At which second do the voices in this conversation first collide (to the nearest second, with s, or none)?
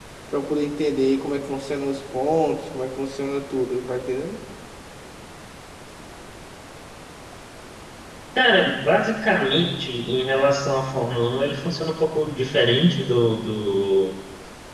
none